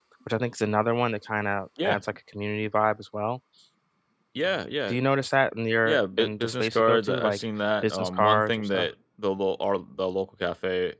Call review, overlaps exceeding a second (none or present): present